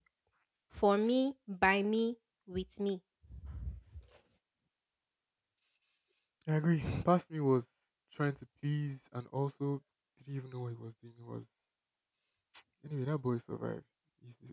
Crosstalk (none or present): none